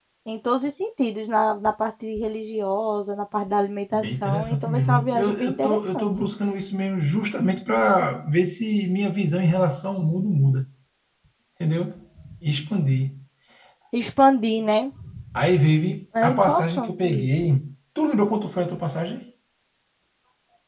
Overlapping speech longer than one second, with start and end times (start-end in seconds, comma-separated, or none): 3.9-6.3, 16.2-17.5